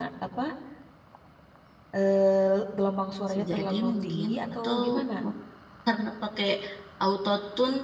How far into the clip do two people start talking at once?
3.3 s

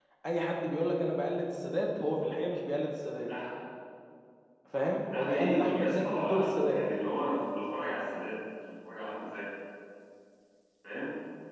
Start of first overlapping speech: 5.1 s

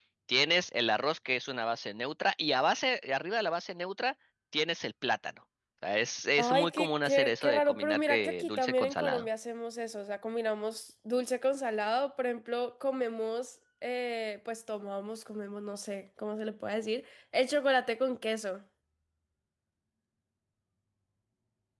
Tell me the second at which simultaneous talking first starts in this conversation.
6.4 s

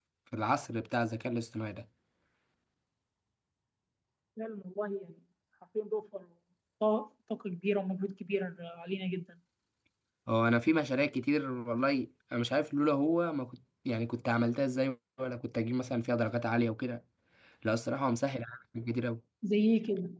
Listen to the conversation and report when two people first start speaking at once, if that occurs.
none

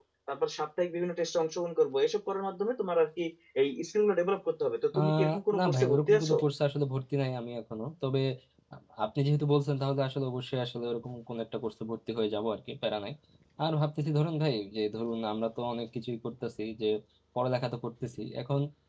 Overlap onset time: 4.9 s

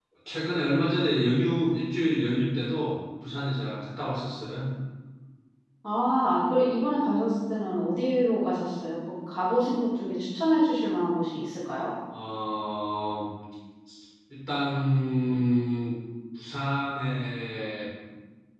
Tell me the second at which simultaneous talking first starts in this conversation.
none

